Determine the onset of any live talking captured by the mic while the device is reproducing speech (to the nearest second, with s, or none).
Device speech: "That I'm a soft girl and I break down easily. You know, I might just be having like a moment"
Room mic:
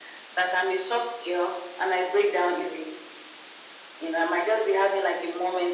none